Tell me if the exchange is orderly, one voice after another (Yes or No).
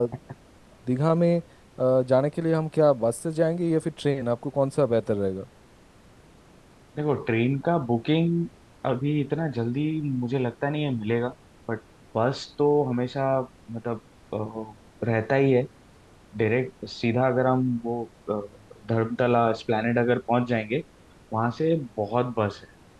Yes